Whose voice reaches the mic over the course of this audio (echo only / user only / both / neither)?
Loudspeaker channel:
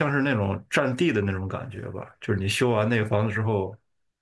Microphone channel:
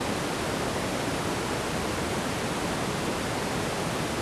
neither